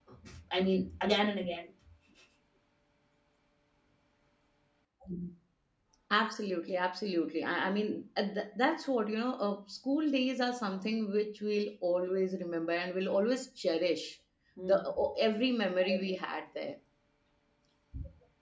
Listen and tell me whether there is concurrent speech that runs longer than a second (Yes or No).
No